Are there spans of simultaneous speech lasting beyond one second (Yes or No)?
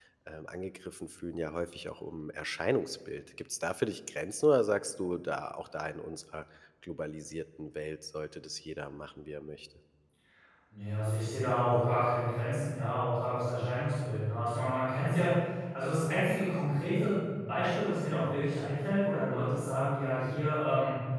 No